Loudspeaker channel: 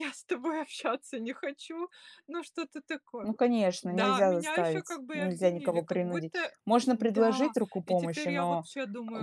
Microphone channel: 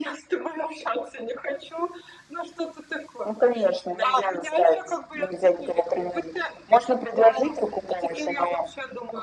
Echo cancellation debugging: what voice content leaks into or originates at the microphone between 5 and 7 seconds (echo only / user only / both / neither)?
echo only